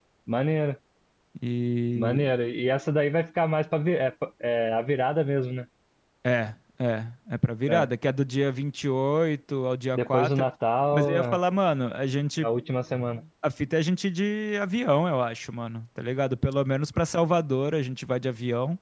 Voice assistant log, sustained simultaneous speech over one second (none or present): none